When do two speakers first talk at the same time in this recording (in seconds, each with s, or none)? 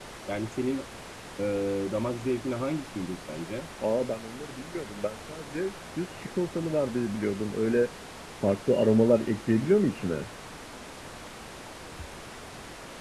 none